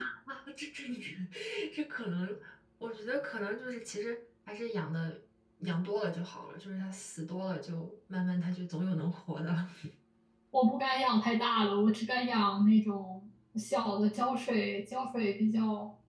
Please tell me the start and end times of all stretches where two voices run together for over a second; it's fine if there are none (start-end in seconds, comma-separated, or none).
none